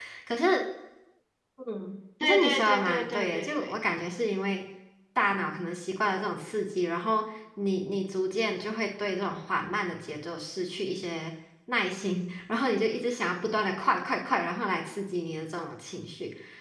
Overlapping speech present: Yes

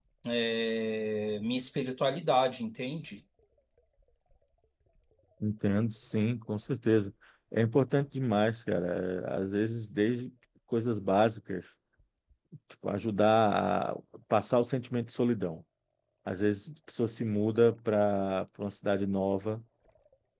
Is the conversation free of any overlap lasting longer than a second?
Yes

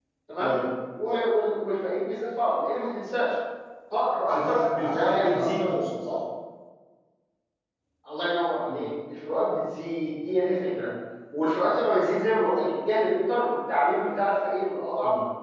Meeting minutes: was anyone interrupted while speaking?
Yes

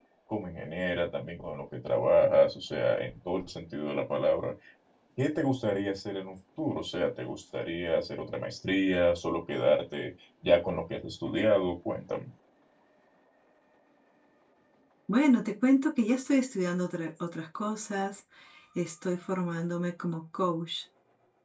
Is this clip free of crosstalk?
Yes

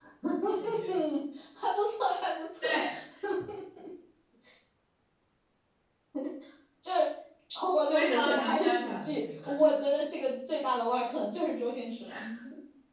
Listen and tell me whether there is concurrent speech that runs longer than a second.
Yes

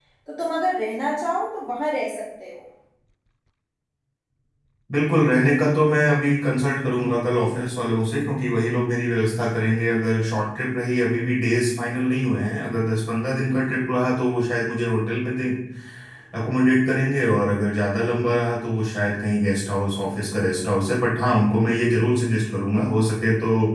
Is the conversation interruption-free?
Yes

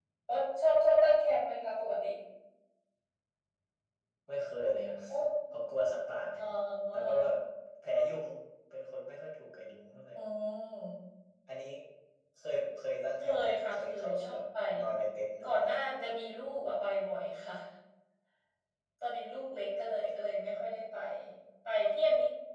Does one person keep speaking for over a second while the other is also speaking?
Yes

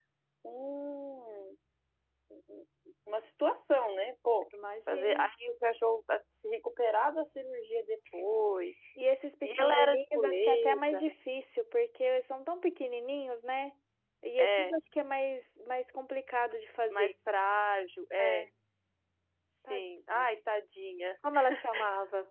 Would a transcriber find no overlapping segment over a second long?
No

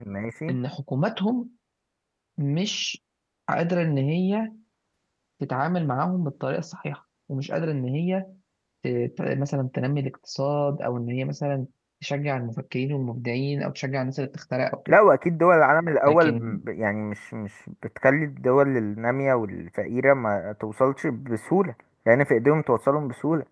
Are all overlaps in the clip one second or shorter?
Yes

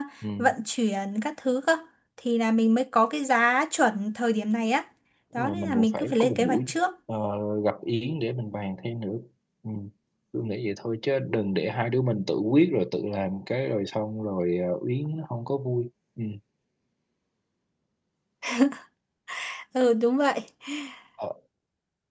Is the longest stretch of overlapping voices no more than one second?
No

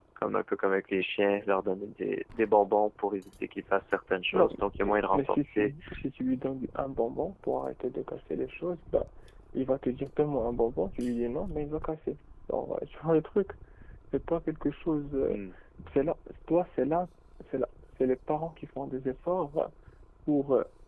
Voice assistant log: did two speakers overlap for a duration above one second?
Yes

